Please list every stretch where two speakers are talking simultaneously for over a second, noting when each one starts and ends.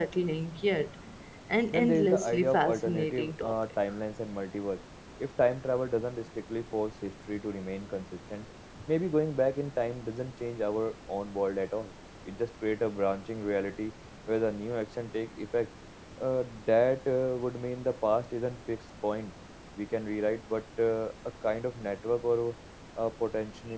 1.7-3.6

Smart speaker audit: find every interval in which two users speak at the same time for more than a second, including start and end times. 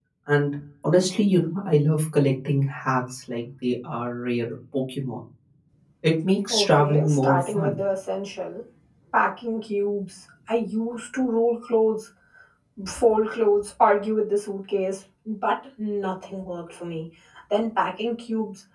6.5-7.8

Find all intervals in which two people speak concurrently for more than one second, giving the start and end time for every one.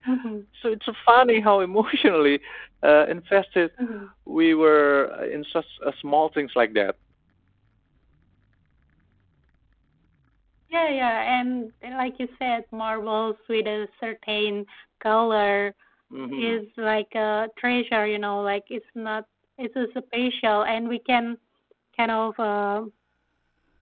none

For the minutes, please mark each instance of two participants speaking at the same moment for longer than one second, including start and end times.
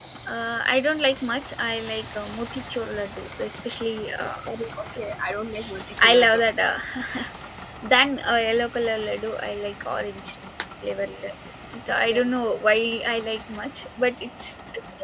none

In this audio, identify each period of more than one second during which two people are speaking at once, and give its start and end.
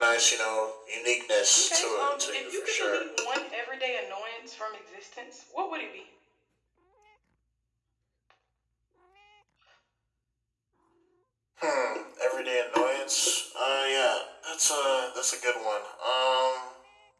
1.6-3.0

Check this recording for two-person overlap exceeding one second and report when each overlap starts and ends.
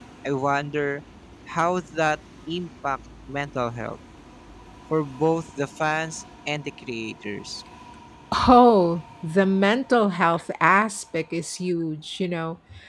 none

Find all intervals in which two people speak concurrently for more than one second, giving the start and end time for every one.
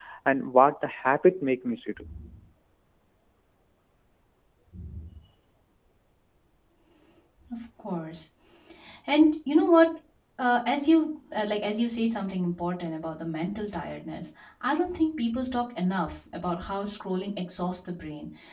none

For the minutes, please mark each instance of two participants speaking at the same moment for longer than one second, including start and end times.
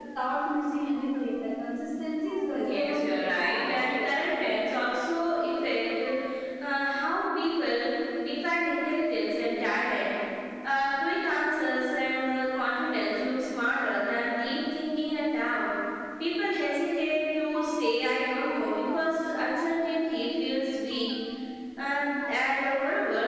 2.5-4.1

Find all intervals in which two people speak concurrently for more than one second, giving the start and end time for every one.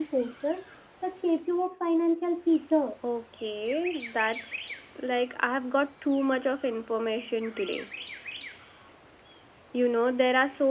none

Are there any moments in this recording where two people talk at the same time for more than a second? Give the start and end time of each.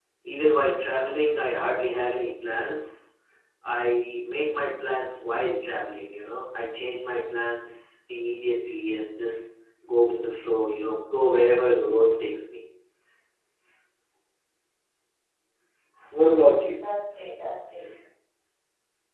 0.9-2.2

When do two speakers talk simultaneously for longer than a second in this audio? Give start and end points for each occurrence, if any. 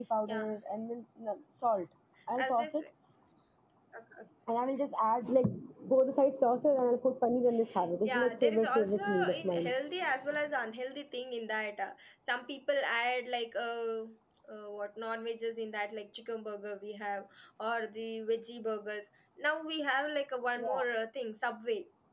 8.0-9.7

